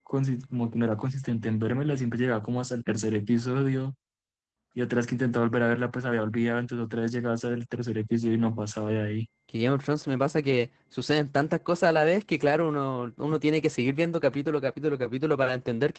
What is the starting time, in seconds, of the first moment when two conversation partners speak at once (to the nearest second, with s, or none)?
none